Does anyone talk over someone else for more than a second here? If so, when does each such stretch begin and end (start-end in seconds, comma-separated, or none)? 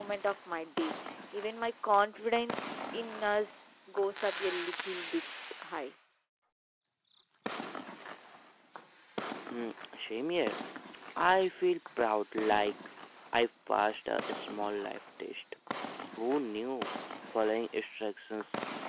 none